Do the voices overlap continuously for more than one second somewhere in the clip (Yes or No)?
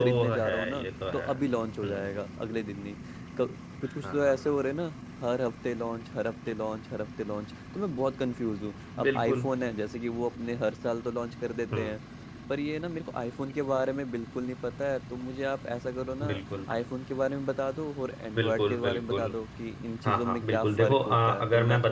Yes